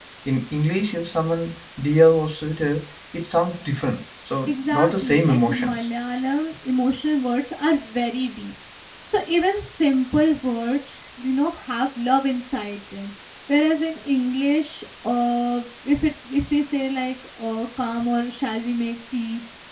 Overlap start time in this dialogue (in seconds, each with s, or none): 4.5 s